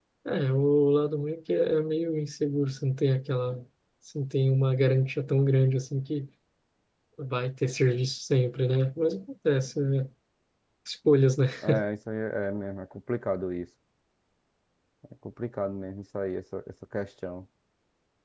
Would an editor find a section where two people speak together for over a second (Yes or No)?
No